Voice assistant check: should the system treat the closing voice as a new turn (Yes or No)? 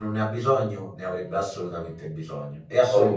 Yes